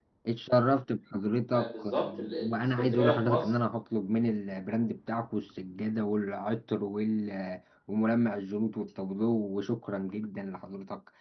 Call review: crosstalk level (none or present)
present